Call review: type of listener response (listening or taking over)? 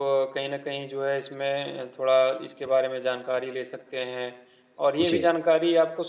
listening